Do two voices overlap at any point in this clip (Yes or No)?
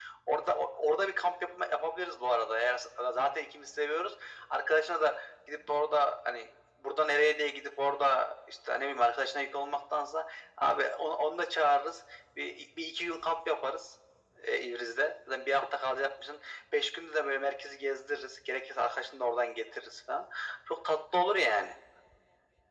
No